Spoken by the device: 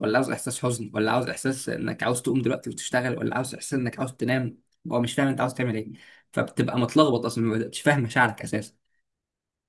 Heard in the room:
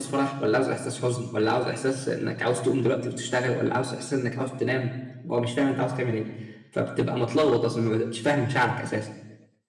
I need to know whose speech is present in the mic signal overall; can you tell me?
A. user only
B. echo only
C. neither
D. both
B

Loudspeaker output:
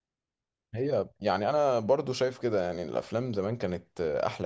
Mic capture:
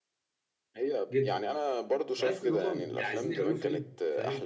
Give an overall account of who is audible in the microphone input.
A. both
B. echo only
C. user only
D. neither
A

